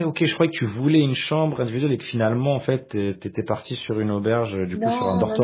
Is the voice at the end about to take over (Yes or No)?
Yes